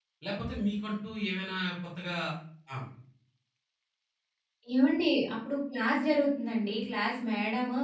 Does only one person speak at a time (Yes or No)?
Yes